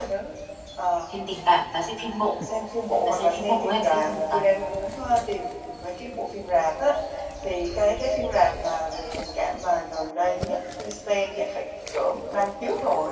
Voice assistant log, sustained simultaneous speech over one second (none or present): present